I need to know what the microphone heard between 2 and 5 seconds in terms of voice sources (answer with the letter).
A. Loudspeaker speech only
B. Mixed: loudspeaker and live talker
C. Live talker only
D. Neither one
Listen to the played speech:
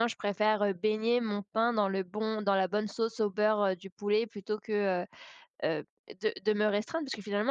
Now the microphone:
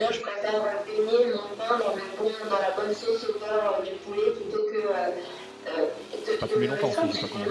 A